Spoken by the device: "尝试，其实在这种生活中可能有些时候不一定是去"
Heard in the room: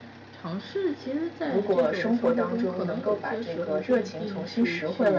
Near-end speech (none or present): present